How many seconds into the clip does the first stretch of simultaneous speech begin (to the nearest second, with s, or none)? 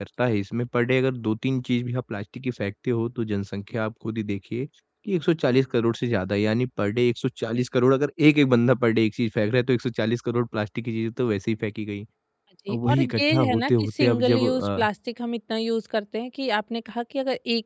13 s